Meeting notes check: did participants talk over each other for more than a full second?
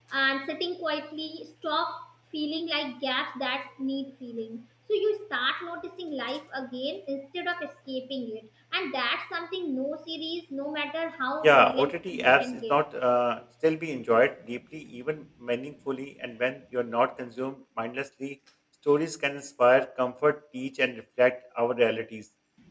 Yes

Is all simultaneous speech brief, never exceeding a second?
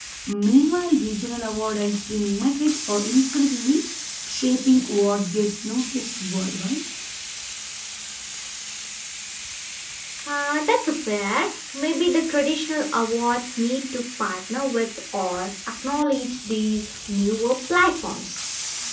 Yes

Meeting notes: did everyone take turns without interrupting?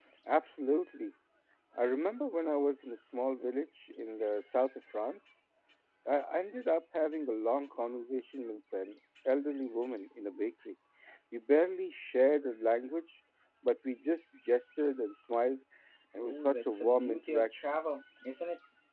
No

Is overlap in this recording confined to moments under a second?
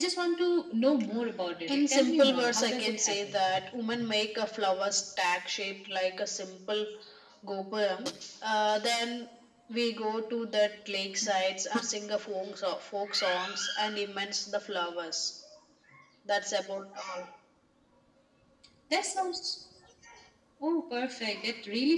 No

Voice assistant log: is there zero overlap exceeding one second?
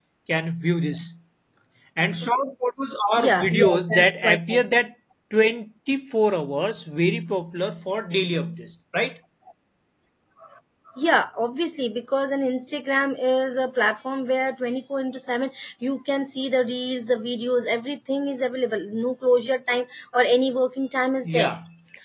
No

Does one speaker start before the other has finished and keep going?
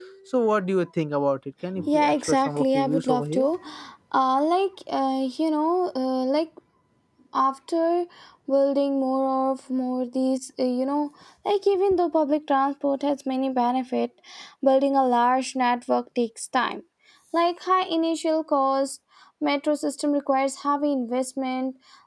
Yes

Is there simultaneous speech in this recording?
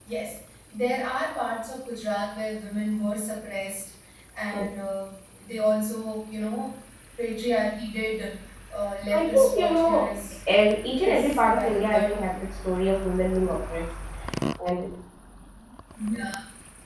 Yes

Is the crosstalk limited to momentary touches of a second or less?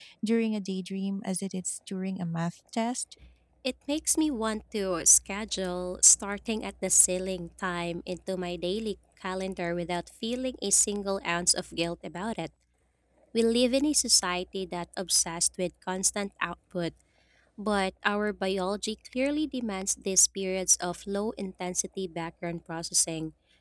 Yes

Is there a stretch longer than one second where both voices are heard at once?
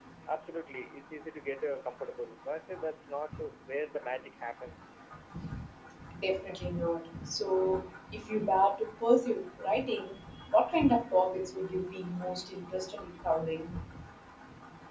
No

